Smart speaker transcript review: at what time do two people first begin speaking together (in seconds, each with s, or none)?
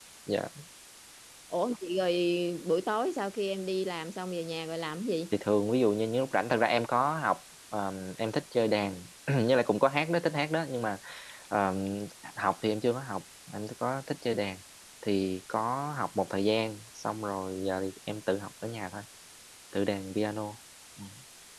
none